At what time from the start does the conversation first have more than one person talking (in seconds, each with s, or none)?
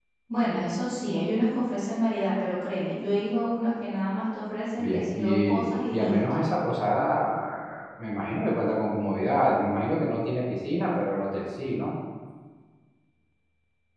4.8 s